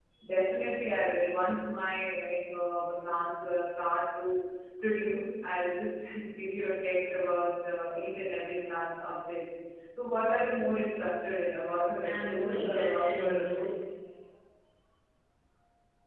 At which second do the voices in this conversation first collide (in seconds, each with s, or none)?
12.0 s